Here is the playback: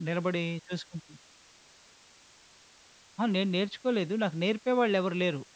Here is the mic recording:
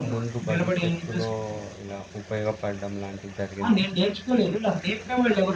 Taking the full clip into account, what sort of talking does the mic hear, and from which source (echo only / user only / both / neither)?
both